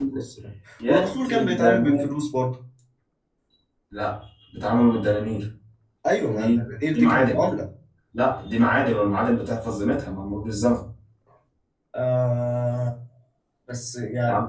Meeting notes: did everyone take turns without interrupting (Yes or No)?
No